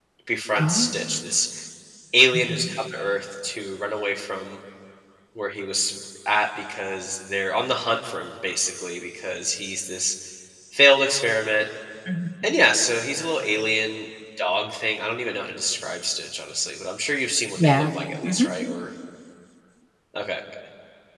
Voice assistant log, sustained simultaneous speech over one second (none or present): none